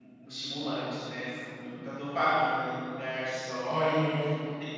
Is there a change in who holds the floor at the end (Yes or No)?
No